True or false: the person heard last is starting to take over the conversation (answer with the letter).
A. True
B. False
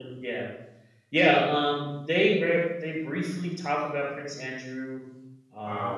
B